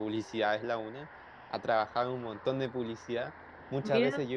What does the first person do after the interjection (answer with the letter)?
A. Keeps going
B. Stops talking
A